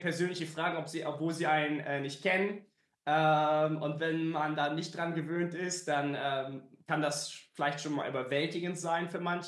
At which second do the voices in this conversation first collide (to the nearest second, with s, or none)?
none